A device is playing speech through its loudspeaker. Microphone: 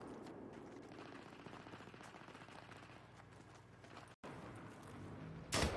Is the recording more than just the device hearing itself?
No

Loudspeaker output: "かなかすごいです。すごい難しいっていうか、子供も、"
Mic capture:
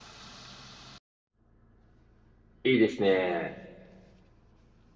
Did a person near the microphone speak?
Yes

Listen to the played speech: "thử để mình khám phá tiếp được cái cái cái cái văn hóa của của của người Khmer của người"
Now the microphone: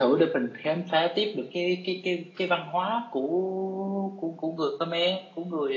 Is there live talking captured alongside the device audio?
No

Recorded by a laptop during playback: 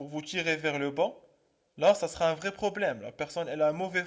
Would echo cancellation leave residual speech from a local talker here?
Yes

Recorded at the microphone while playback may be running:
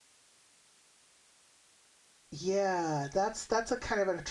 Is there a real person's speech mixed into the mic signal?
Yes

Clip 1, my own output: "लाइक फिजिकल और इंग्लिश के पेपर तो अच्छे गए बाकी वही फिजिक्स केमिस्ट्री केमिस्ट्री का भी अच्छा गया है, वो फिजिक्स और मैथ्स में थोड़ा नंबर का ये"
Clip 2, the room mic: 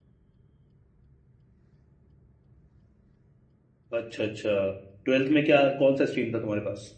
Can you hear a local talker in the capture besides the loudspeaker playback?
Yes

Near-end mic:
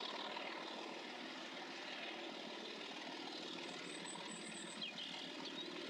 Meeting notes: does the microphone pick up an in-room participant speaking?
No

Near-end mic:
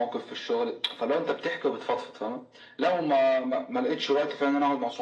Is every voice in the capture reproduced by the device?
Yes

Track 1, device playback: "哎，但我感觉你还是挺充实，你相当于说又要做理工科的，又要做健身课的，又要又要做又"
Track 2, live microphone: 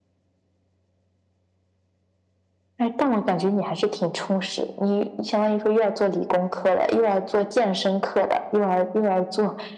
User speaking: No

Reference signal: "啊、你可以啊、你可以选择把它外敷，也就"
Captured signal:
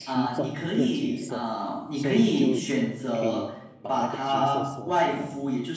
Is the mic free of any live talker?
No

